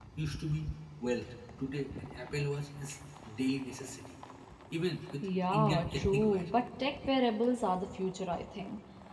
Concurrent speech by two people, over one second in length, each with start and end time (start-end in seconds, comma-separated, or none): 5.2-6.5